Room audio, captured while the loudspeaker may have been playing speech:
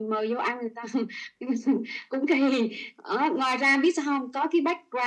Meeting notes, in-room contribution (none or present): none